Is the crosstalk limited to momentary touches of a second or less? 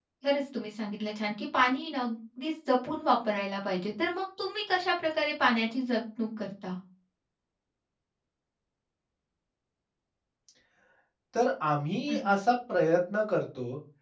Yes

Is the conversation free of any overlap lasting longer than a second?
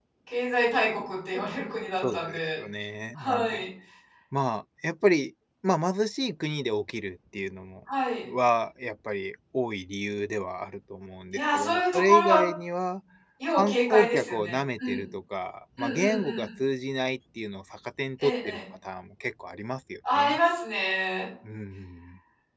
No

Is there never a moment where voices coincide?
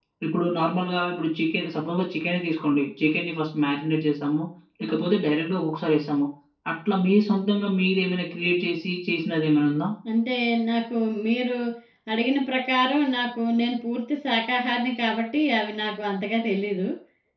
Yes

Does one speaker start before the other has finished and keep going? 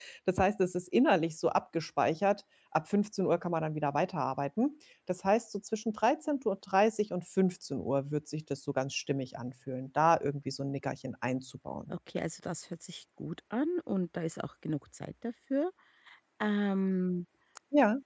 No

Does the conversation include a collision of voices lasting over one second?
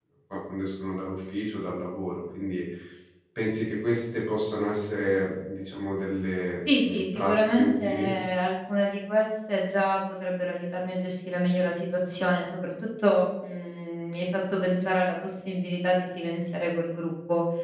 Yes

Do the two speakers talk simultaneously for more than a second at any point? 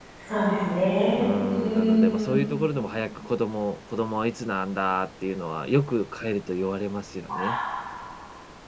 Yes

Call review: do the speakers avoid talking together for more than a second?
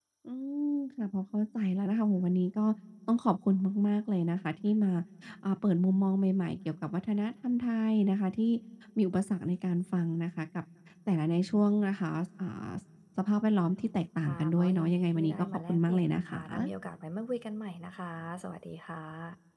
No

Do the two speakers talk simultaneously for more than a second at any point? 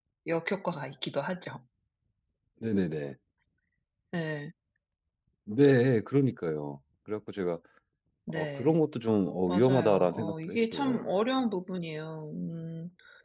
Yes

